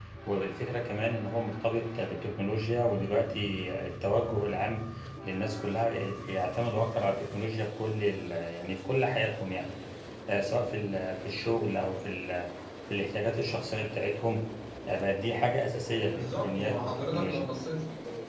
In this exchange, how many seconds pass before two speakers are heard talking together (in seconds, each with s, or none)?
16.1 s